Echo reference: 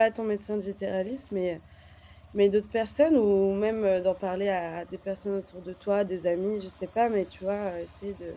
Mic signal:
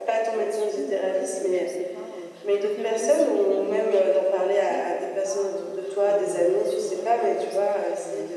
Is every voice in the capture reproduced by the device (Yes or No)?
No